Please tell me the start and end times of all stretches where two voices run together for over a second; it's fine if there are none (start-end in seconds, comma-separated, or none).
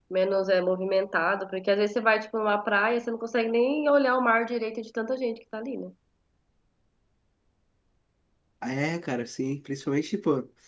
none